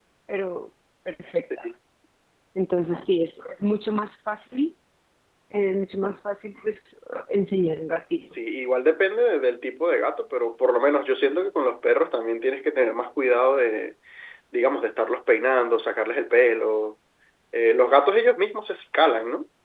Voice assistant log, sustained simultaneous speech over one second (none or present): none